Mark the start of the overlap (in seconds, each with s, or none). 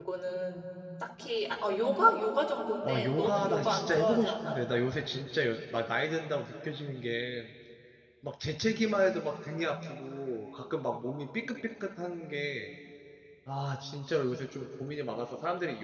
2.8 s